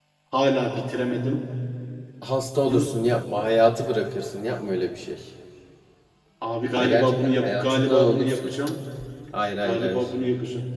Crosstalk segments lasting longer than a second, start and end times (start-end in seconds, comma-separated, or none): 6.8-8.5